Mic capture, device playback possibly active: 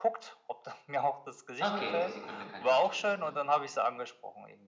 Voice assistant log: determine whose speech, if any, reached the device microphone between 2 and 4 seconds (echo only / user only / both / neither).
both